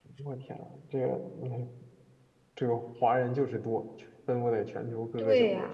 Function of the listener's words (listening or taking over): taking over